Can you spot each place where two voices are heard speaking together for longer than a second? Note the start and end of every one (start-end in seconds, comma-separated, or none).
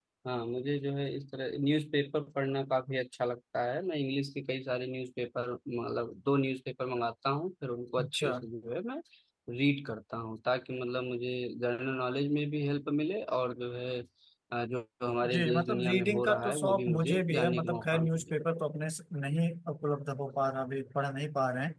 15.3-18.3